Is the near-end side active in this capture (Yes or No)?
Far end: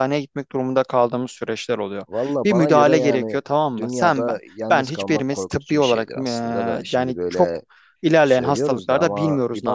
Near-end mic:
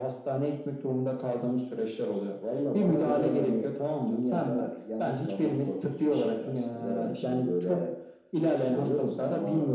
No